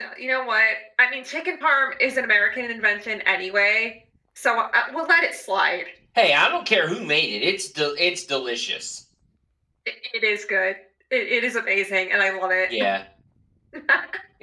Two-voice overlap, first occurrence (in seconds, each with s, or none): none